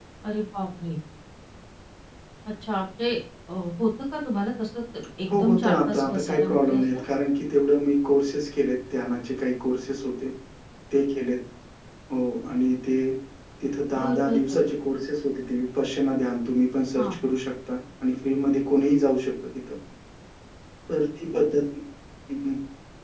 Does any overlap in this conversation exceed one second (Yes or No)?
Yes